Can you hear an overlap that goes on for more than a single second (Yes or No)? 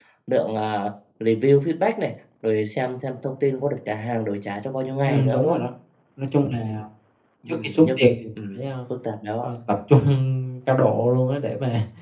No